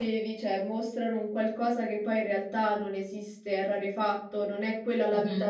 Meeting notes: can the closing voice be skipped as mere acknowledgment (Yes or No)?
Yes